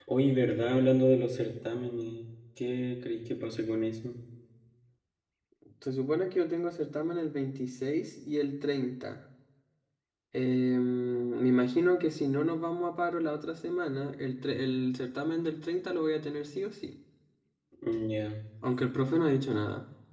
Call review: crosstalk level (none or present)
none